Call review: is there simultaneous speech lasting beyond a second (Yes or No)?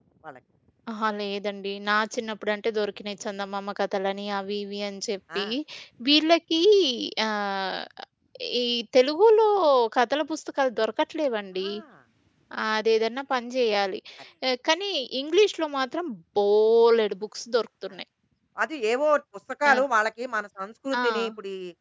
No